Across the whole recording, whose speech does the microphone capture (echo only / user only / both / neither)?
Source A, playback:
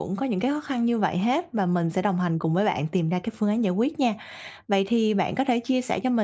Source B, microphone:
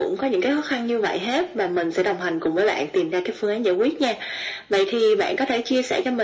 echo only